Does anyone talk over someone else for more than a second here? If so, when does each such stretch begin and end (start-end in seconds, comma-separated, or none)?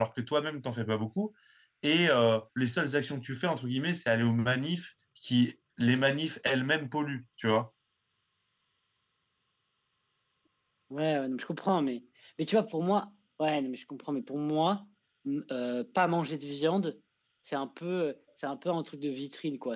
none